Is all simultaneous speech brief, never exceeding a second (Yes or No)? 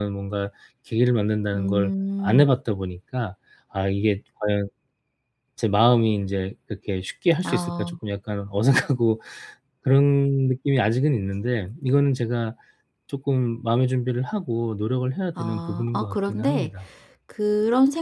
No